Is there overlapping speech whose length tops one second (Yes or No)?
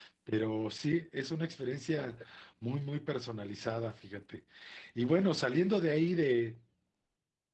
No